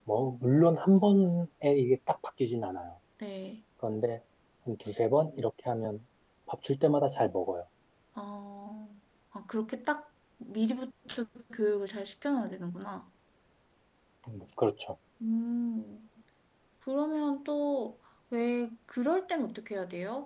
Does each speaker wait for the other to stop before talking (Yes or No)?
Yes